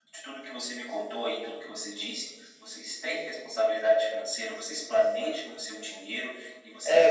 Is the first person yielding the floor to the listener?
Yes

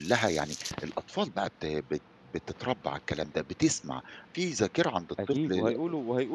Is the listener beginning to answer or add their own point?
Yes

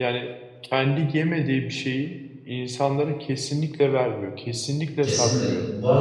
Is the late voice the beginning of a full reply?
Yes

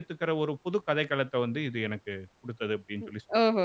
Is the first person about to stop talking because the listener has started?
Yes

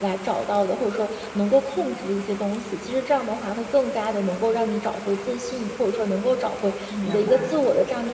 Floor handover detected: No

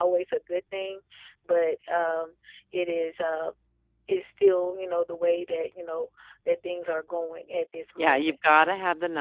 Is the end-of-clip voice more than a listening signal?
Yes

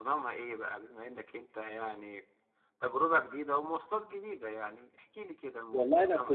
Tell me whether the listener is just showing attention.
No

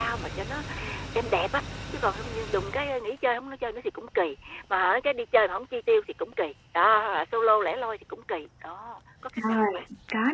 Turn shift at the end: Yes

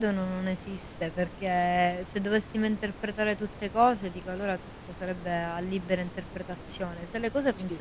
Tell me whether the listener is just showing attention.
Yes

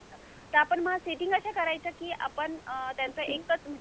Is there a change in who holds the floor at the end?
No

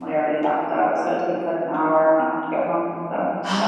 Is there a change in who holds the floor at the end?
Yes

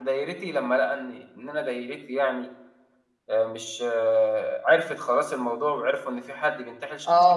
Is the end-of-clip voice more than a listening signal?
Yes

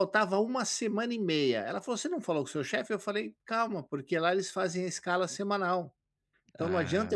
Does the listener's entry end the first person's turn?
No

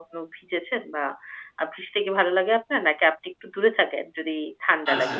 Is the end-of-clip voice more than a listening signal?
Yes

